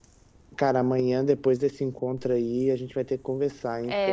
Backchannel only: No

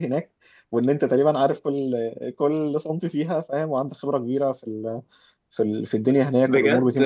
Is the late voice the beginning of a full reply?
Yes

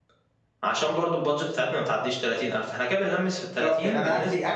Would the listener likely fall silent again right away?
No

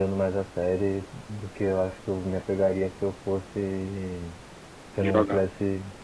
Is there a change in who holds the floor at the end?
No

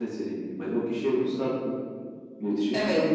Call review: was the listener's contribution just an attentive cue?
Yes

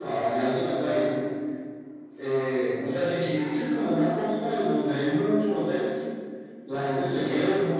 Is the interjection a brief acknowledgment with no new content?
Yes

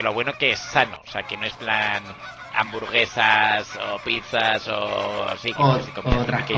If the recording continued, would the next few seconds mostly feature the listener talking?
Yes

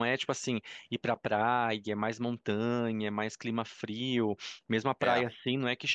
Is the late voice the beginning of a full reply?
No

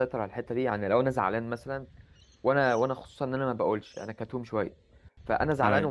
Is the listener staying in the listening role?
Yes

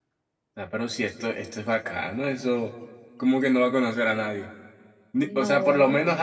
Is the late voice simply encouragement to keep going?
Yes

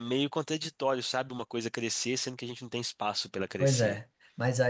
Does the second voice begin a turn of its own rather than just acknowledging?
Yes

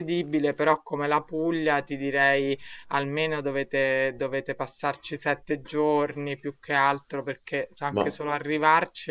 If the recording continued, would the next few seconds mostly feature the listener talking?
No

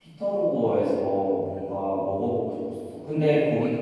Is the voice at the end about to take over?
No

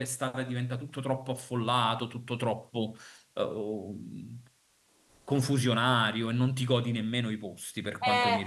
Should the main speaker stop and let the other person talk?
Yes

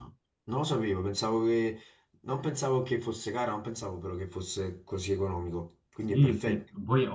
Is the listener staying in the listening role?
No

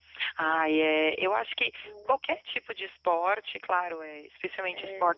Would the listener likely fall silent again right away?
Yes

